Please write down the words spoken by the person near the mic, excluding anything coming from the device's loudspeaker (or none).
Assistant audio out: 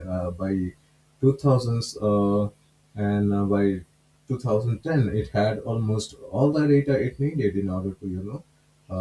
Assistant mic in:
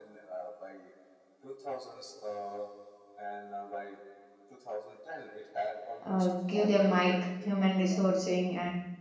uh, give them like human resourcing and